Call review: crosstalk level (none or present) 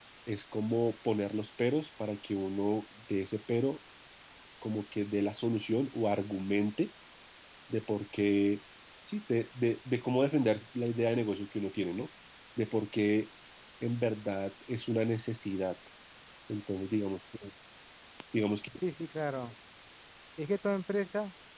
none